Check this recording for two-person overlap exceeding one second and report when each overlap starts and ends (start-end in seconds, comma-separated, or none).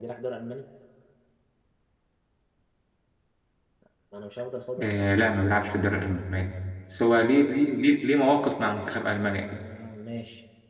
8.2-9.6